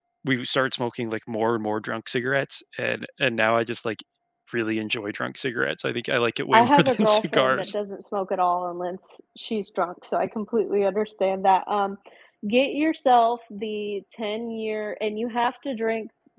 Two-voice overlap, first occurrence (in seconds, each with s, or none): 6.5 s